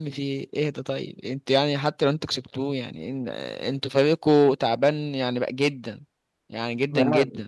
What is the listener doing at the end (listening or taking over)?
taking over